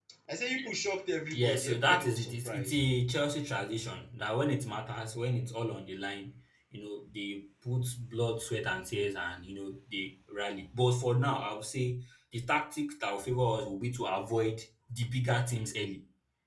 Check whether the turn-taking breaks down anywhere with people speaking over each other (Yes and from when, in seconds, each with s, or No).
Yes, from 1.3 s